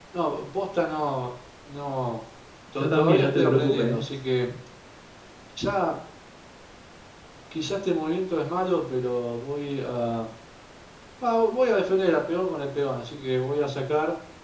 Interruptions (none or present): present